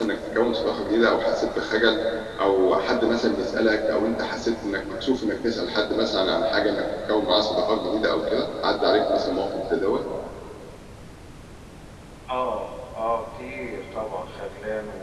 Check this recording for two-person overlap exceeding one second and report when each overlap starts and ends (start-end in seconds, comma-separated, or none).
none